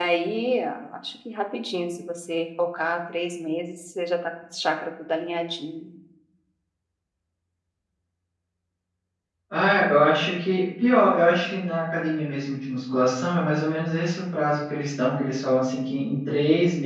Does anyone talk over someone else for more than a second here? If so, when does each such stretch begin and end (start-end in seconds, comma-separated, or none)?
none